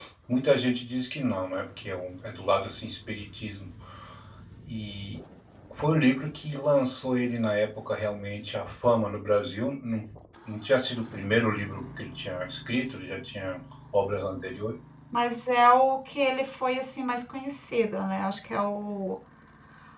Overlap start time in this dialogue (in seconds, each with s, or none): none